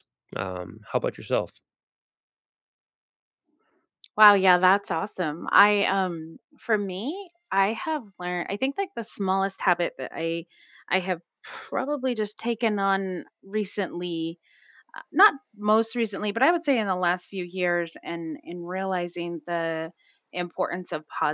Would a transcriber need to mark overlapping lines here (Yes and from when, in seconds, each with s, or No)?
No